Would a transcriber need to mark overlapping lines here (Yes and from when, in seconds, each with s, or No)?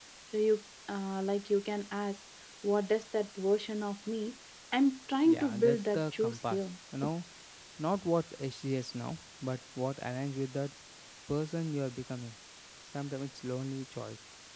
Yes, from 5.2 s